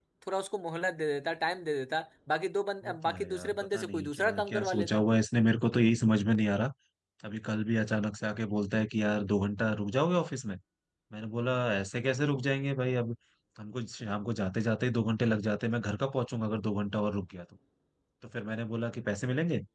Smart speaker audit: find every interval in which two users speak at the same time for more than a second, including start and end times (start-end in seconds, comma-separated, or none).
2.8-5.0